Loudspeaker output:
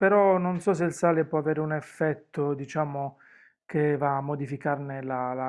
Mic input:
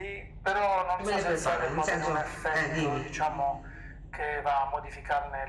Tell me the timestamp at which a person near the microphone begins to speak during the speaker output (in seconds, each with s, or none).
1.0 s